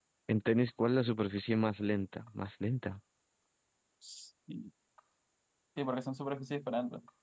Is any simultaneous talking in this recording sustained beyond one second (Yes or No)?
No